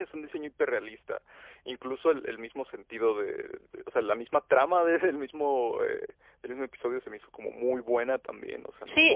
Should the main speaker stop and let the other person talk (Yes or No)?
Yes